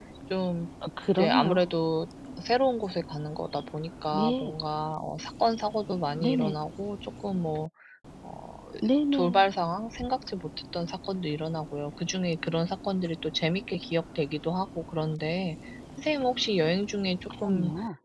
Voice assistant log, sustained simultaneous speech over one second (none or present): none